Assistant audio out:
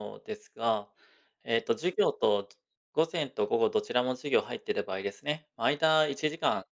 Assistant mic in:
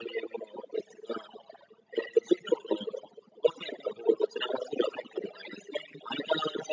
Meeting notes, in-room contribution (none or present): none